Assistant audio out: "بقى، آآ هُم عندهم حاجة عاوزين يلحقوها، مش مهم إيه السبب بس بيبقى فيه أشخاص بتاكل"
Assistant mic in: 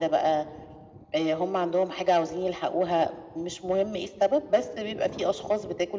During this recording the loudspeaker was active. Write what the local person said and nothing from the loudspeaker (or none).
none